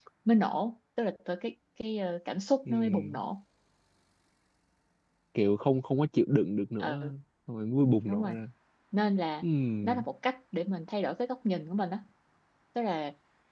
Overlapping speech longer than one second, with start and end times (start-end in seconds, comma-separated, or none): none